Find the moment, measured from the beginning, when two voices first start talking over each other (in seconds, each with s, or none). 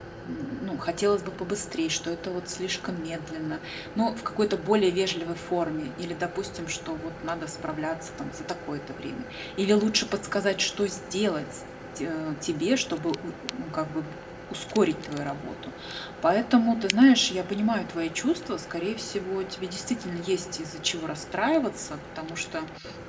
none